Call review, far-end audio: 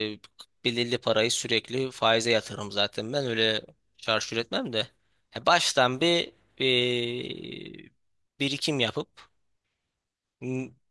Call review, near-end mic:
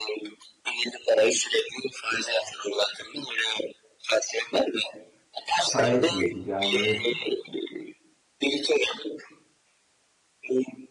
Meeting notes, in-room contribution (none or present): present